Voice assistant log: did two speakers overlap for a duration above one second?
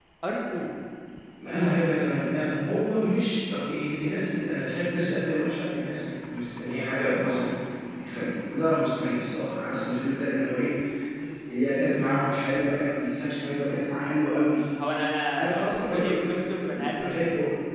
Yes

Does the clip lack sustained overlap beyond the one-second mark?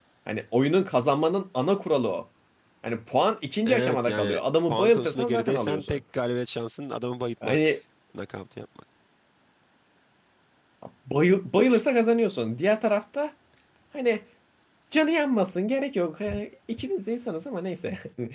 No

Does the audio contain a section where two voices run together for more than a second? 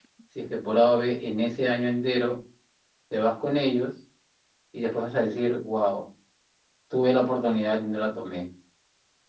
No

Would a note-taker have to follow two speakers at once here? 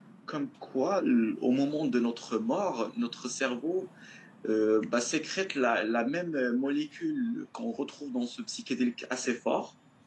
No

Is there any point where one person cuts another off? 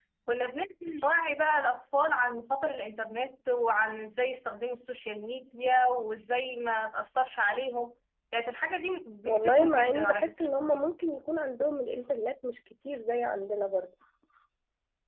Yes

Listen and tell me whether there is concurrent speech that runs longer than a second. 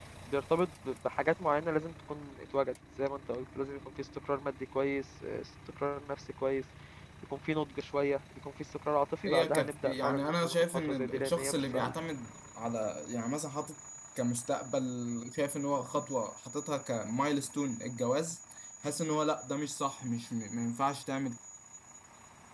Yes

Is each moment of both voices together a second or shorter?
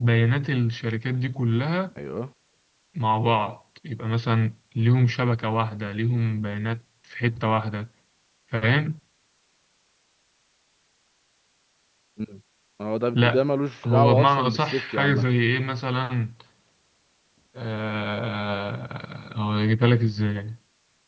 No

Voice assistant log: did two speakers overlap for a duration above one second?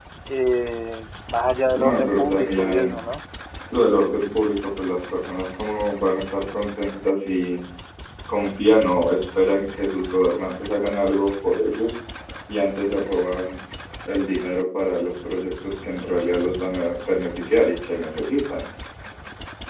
Yes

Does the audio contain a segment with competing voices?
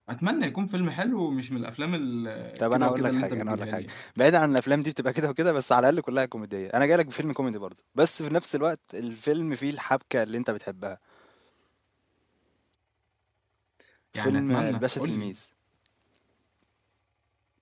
Yes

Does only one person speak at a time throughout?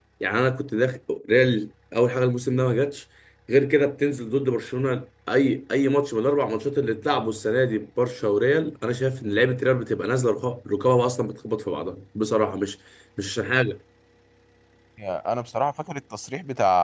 Yes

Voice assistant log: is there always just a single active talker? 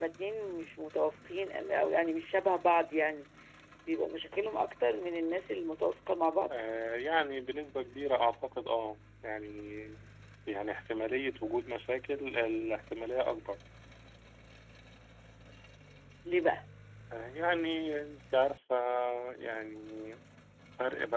Yes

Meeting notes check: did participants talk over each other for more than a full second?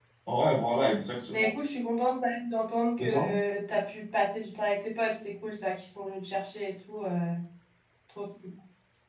No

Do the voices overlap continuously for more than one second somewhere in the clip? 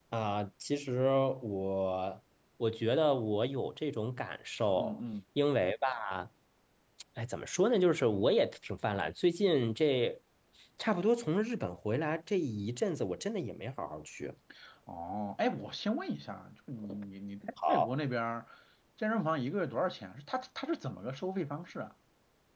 No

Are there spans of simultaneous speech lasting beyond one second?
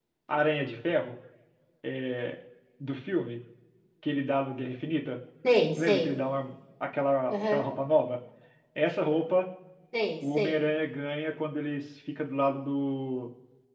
No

